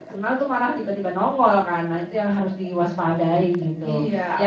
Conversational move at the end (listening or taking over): taking over